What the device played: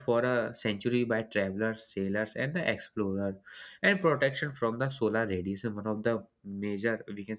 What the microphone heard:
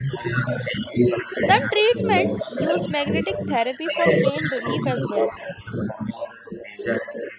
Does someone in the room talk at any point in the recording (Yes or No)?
Yes